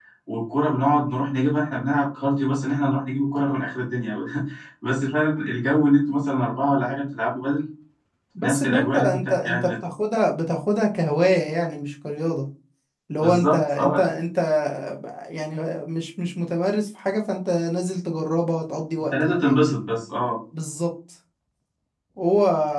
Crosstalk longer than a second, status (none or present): present